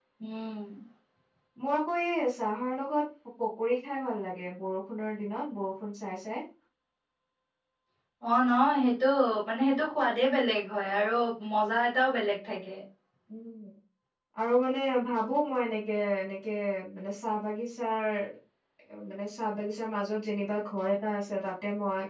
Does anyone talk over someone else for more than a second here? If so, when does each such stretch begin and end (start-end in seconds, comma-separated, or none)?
none